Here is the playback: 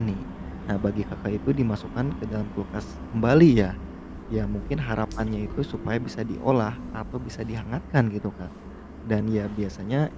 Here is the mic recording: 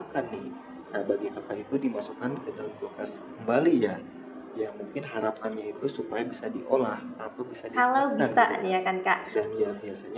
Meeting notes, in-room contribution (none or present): present